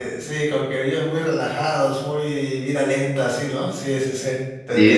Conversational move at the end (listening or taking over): taking over